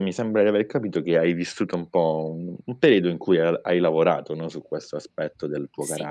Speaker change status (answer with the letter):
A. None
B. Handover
A